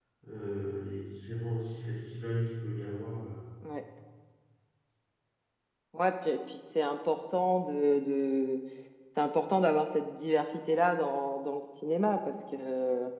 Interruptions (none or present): none